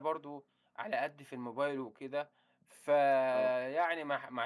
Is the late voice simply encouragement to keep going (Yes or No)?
Yes